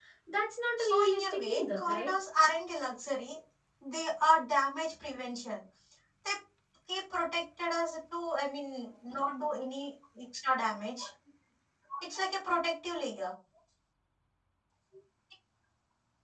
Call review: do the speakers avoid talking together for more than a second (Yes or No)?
No